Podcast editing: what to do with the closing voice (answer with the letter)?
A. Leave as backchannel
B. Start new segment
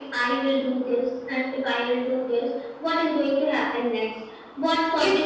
A